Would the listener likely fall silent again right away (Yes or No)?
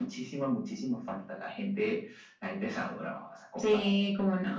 No